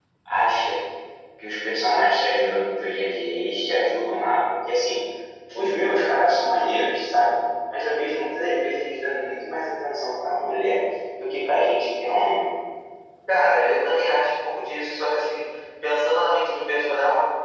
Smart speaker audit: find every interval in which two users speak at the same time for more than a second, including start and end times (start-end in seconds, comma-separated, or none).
none